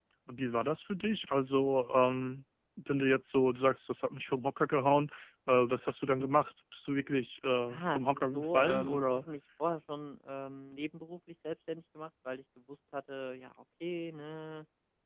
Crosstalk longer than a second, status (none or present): present